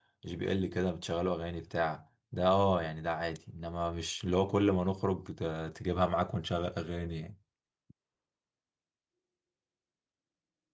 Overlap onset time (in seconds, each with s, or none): none